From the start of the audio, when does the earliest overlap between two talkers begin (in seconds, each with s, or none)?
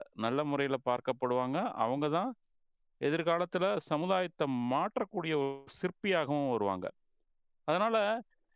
none